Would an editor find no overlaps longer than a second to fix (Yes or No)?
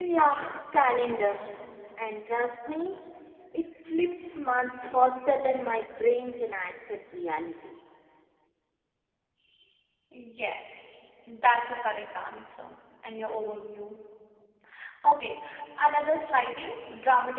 Yes